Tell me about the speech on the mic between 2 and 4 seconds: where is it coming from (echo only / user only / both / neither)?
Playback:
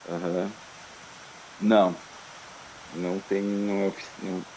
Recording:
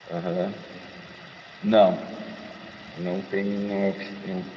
echo only